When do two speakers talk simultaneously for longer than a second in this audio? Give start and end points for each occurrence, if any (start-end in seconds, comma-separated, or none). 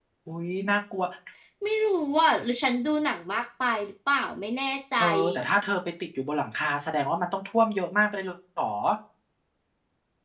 none